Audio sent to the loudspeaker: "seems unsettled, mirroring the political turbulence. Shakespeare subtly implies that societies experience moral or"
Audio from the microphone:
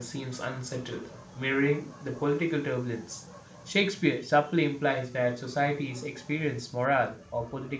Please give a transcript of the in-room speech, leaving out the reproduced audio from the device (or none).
none